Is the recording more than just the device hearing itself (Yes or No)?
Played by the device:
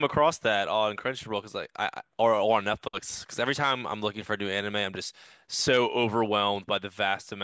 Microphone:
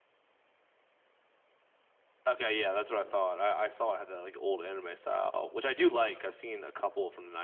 Yes